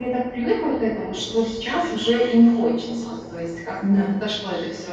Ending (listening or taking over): listening